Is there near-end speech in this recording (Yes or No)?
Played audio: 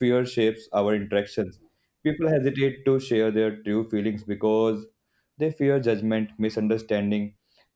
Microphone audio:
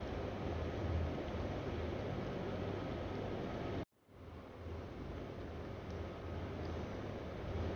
No